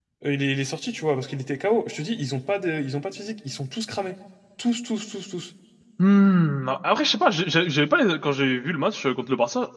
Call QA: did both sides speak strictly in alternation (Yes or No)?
Yes